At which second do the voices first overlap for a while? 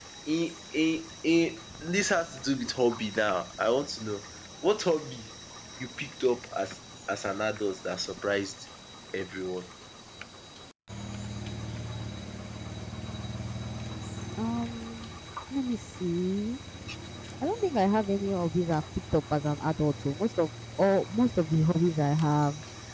none

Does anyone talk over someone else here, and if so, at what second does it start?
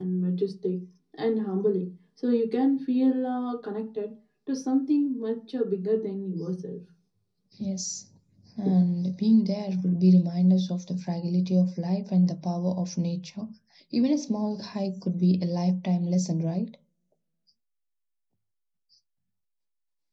none

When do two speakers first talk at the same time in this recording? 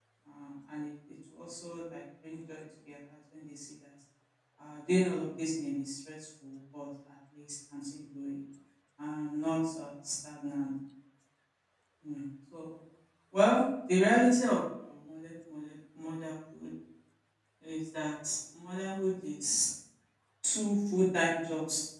none

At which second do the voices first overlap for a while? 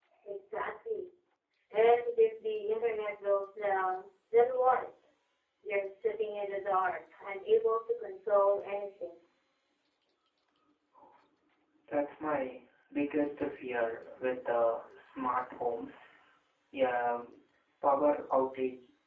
none

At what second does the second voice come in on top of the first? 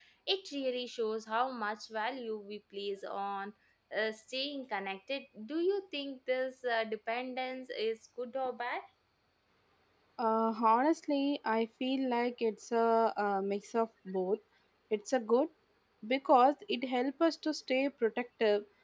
none

